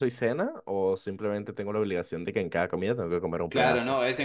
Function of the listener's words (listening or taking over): taking over